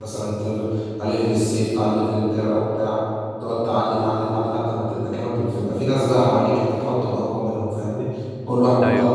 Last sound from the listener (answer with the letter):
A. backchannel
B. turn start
A